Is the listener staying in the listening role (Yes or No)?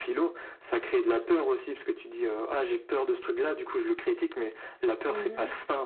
Yes